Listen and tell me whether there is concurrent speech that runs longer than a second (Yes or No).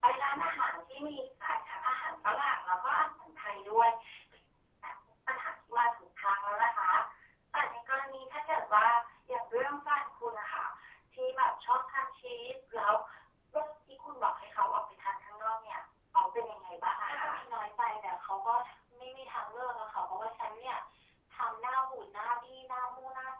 No